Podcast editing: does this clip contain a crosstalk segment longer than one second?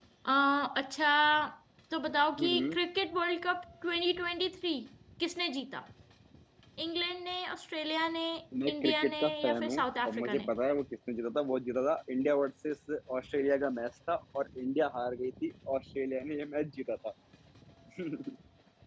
Yes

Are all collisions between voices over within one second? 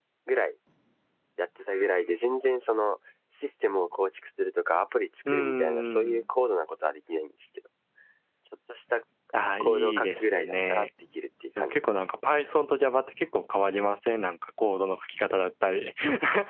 No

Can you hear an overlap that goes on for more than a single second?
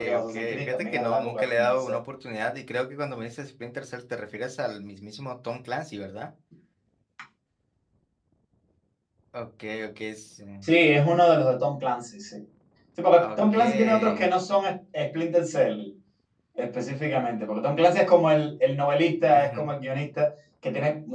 Yes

